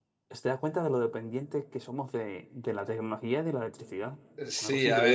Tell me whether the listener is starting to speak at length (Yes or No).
Yes